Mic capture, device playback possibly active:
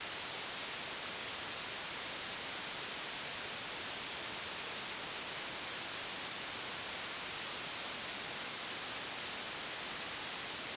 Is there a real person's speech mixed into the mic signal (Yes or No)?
No